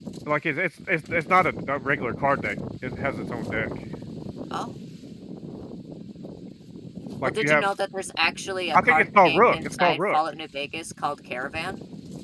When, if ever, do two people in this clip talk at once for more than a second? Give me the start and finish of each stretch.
8.8-10.2

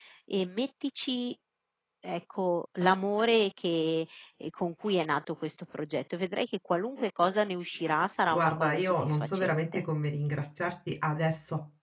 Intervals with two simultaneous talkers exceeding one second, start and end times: 8.3-9.8

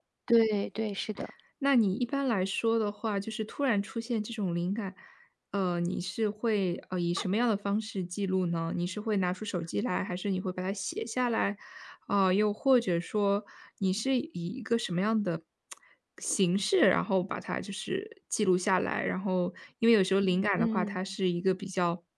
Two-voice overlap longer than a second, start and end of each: none

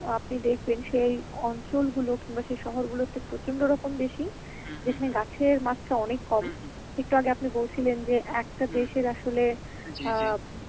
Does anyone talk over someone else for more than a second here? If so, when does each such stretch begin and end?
none

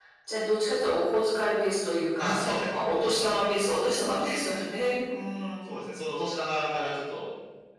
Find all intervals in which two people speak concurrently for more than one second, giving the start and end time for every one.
2.2-3.6

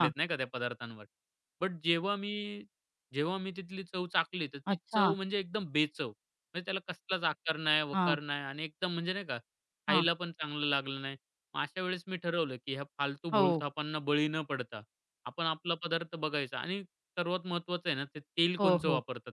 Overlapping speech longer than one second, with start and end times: none

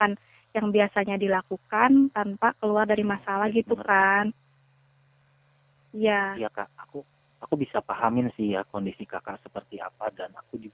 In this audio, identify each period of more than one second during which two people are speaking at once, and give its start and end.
3.0-4.3

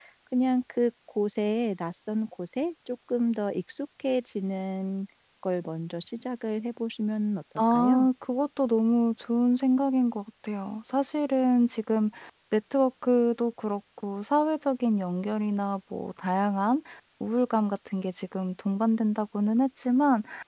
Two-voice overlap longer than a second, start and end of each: none

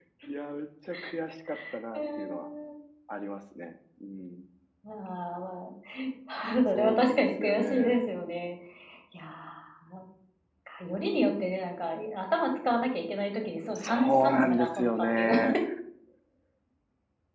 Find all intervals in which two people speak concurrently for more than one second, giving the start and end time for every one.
6.7-8.0, 13.8-15.4

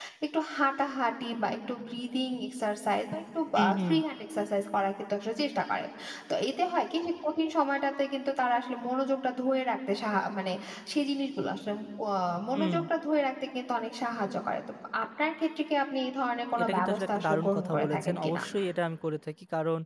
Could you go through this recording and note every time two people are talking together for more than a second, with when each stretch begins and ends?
16.6-18.4

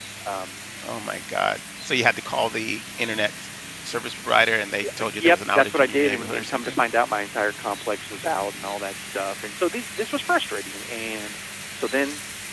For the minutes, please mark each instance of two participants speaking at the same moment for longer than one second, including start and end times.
4.8-6.8

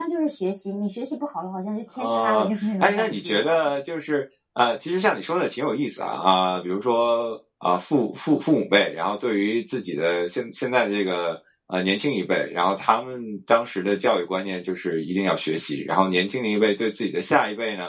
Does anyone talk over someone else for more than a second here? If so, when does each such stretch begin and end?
2.0-3.6

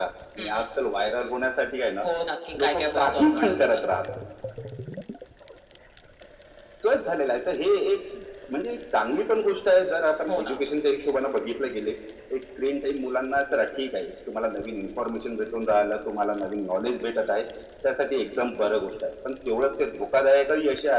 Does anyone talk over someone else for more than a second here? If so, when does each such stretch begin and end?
2.6-3.8

